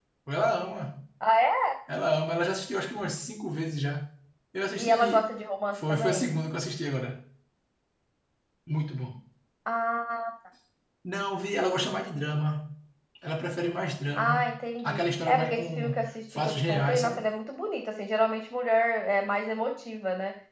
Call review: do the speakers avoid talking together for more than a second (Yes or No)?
No